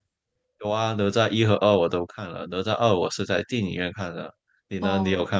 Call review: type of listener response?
taking over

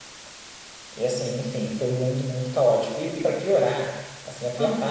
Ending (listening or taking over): listening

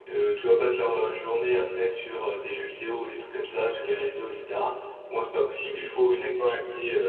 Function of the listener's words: listening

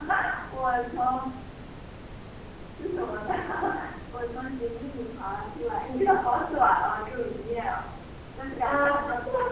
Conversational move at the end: taking over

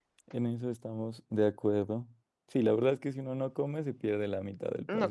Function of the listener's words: taking over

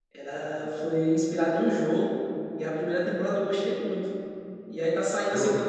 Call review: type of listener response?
listening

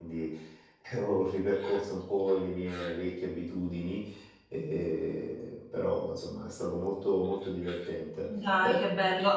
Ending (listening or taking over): taking over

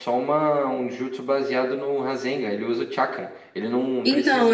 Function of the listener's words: taking over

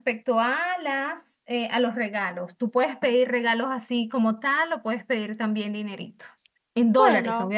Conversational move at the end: listening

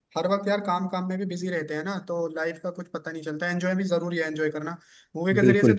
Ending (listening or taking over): listening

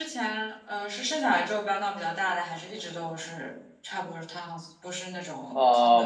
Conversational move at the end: taking over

